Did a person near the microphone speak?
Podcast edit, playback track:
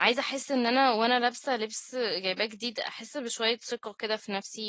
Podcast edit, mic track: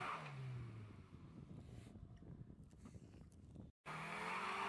No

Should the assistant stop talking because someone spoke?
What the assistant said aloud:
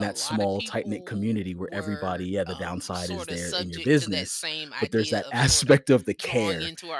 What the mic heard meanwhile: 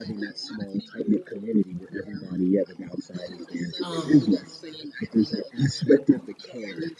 Yes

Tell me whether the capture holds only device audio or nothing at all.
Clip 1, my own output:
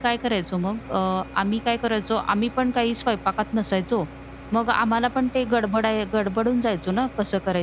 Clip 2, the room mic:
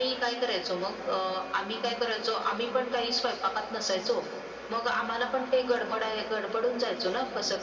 Yes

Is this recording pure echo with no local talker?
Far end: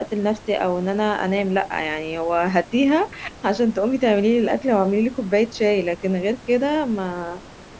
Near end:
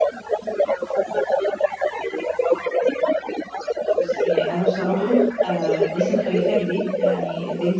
No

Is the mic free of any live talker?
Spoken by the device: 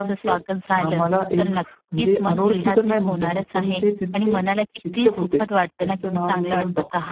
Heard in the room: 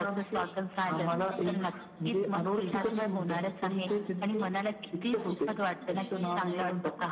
No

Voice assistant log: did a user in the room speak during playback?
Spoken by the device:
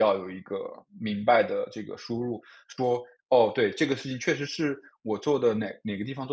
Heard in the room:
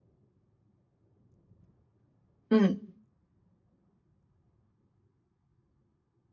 Yes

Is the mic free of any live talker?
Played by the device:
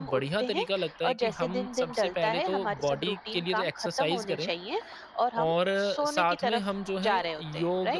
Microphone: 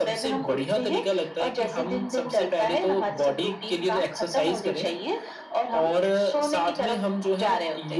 Yes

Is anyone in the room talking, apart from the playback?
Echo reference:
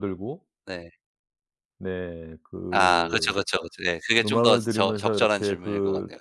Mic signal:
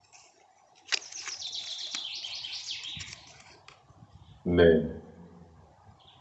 Yes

